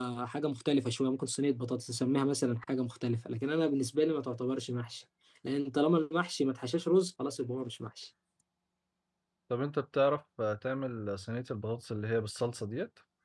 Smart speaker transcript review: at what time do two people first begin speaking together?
none

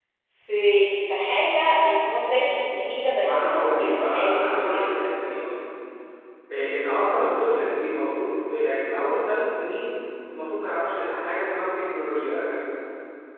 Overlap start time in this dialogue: 3.2 s

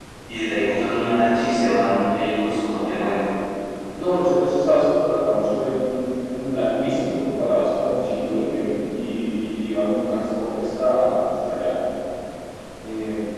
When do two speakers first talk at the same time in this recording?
none

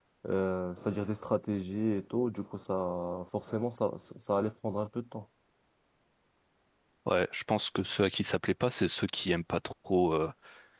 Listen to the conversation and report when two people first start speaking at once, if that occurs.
none

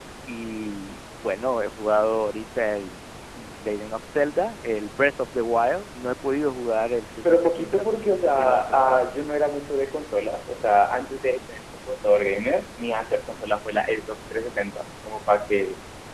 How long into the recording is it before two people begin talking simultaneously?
7.2 s

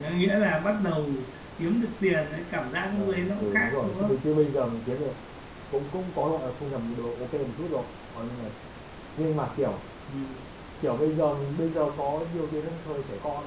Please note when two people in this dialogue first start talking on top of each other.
2.9 s

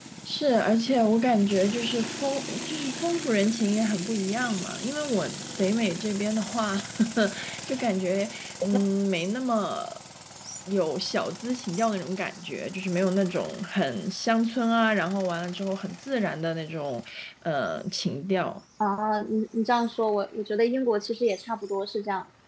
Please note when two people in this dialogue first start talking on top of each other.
none

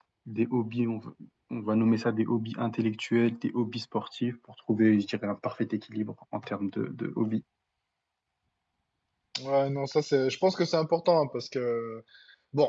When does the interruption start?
none

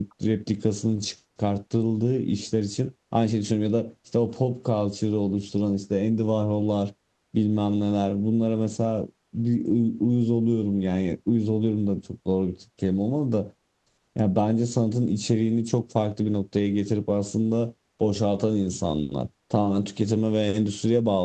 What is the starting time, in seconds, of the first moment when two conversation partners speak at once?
none

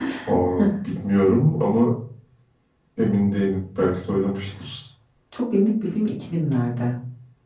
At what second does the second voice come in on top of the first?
none

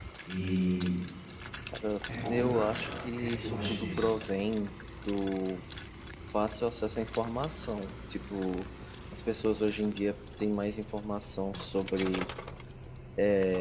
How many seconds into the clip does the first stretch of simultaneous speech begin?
2.3 s

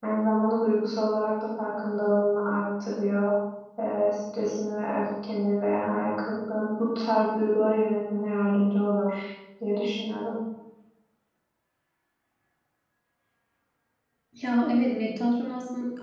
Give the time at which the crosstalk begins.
none

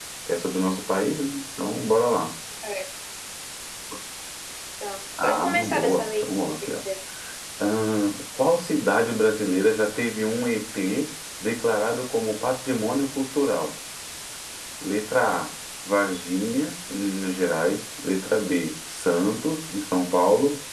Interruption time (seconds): 5.2 s

